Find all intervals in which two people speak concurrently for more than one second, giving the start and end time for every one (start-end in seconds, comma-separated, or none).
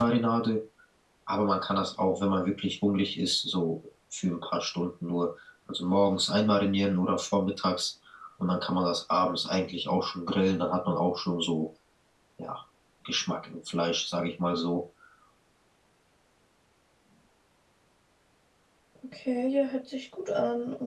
none